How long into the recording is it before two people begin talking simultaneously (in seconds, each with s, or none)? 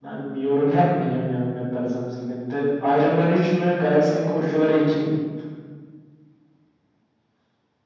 none